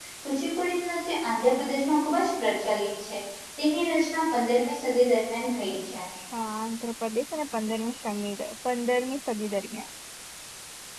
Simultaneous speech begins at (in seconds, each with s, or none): none